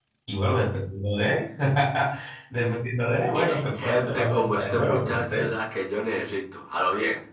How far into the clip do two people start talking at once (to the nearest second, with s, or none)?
3 s